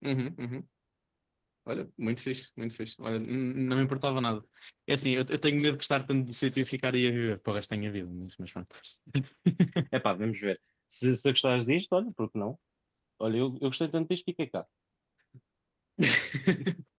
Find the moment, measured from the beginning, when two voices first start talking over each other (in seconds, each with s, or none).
none